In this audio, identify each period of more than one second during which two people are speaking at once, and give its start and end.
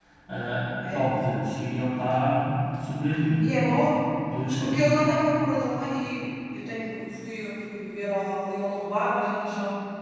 none

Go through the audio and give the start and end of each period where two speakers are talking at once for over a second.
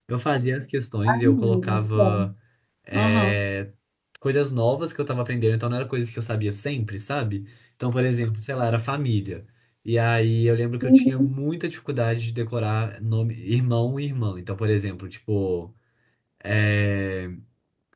1.1-2.3

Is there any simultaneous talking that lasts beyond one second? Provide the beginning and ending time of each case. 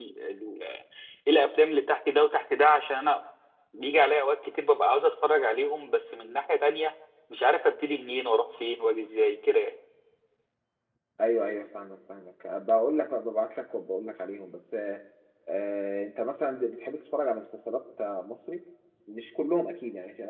none

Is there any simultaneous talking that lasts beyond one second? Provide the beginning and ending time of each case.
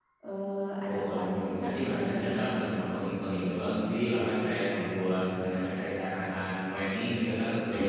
0.8-2.4

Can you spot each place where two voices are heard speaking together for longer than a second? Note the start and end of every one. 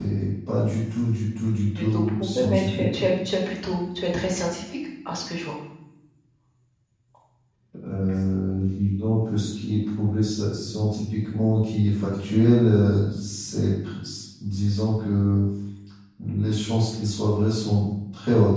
1.8-3.0

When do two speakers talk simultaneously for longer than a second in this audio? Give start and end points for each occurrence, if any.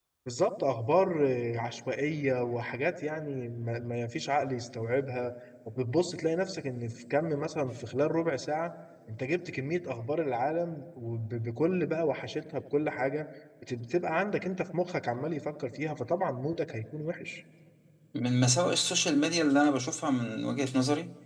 none

